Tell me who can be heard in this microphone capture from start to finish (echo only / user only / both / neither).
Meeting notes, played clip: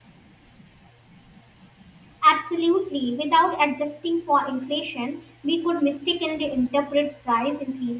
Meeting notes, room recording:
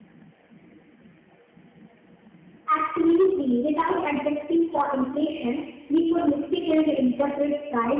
echo only